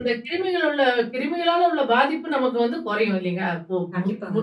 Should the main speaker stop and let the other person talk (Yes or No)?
Yes